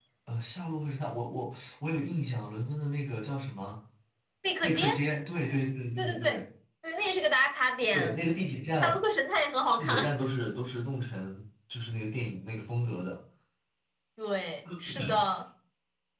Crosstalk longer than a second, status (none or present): none